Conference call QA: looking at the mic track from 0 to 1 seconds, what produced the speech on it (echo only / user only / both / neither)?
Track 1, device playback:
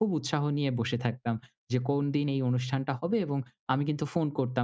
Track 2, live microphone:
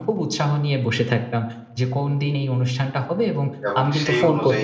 echo only